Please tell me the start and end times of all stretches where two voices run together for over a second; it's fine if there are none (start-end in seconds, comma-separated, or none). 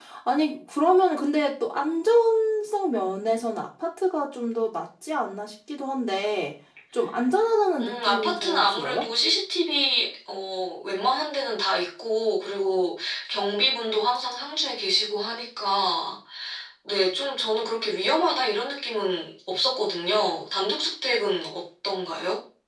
7.8-9.1